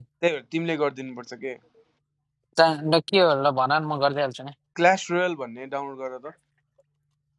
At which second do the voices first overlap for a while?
none

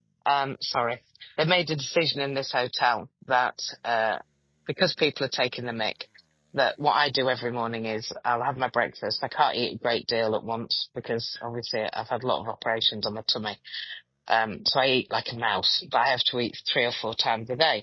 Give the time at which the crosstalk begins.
none

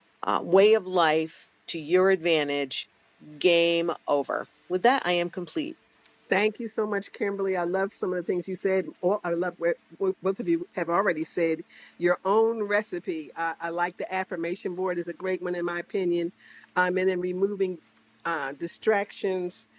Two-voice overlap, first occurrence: none

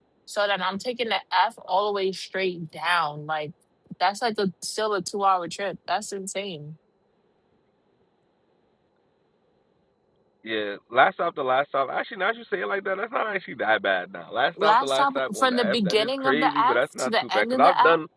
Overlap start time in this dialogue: 15 s

